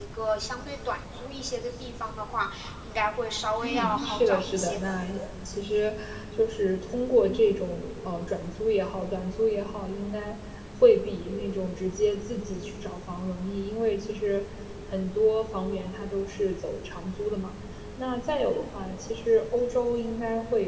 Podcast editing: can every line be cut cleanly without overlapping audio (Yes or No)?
No